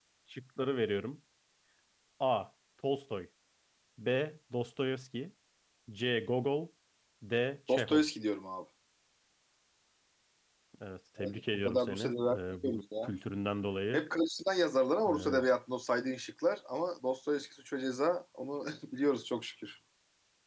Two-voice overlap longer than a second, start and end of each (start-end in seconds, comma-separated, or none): 11.2-13.1